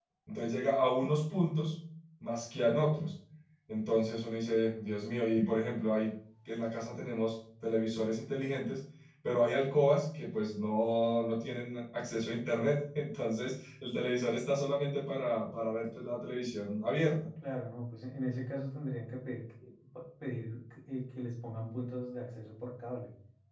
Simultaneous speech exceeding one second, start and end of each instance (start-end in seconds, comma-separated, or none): none